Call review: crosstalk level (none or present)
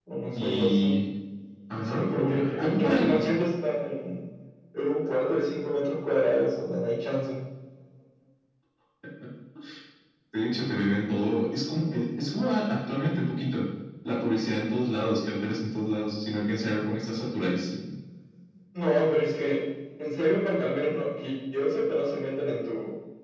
present